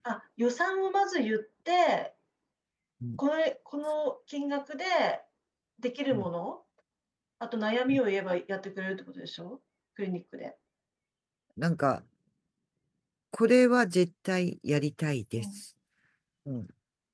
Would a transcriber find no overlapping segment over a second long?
Yes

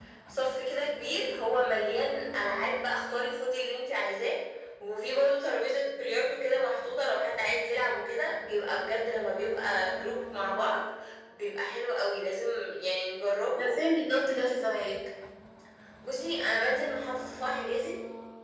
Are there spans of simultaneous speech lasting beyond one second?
No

